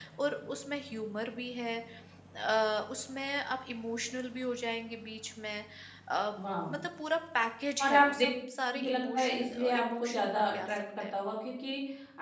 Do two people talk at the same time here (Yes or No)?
Yes